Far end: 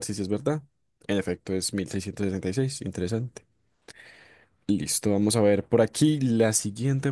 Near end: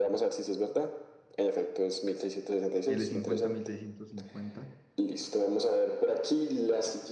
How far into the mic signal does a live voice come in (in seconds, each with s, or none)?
2.9 s